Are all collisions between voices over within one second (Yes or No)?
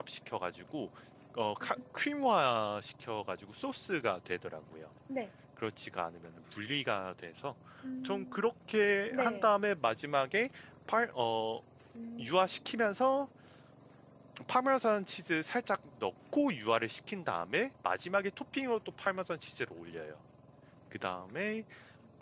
Yes